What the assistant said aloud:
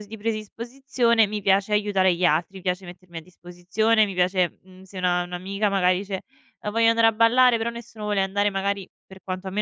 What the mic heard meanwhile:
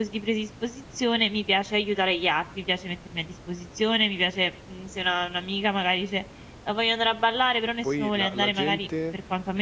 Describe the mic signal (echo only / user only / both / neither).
both